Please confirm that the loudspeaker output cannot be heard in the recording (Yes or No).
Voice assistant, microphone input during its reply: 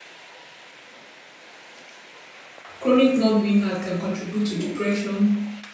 Yes